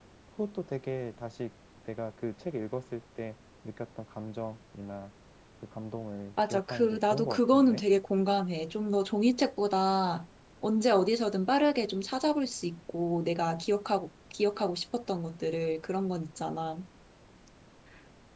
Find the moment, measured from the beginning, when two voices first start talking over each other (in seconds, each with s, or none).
6.4 s